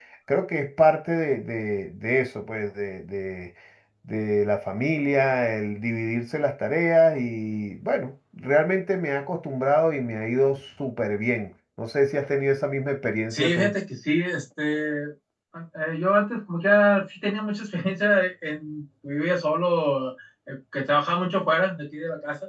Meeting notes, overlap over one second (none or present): none